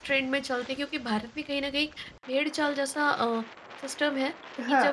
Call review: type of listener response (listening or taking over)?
listening